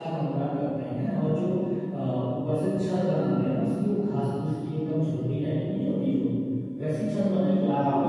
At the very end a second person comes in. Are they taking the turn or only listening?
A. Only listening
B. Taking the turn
A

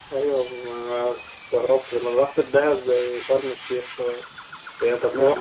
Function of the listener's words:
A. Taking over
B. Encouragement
B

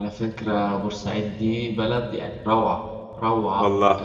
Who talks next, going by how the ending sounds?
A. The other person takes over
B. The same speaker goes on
B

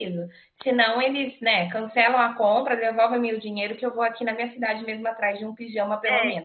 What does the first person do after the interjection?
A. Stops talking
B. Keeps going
A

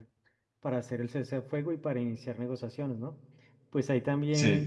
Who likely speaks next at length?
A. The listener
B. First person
B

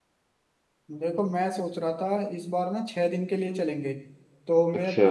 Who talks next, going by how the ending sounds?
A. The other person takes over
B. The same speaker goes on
B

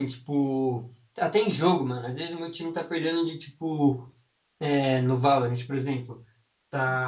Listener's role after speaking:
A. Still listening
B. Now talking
A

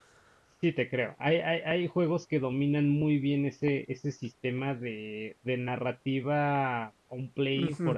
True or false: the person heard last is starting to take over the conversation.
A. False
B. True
B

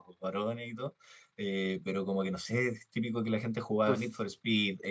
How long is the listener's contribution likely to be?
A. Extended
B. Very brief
B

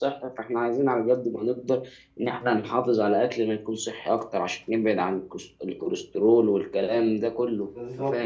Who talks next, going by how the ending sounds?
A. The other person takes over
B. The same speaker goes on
A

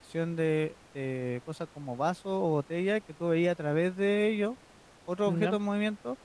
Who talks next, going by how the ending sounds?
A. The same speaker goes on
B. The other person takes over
A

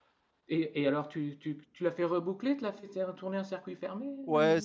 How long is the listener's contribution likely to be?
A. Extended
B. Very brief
A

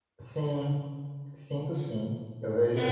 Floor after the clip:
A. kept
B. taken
A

